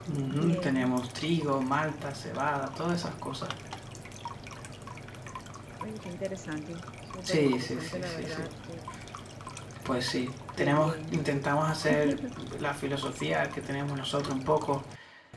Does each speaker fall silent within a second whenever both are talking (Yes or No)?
No